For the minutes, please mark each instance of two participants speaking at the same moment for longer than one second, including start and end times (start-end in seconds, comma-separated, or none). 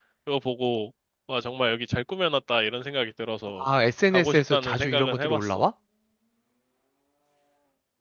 4.1-5.6